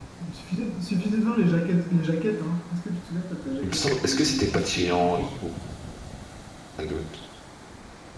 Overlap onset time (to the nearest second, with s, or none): 4 s